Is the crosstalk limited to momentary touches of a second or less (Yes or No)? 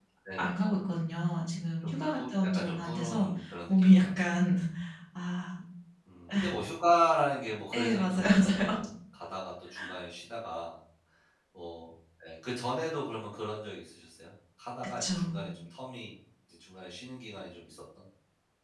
No